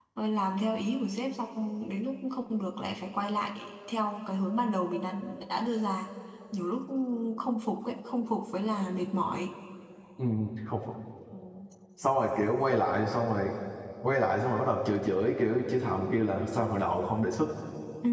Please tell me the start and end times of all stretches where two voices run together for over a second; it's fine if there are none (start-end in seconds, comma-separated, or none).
none